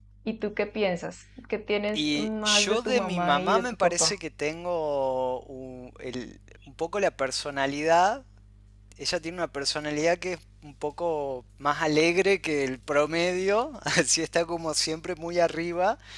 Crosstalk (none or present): present